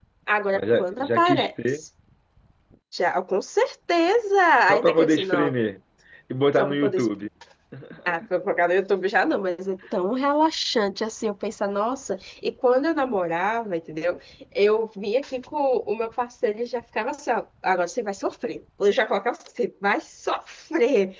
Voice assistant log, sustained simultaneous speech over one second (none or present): present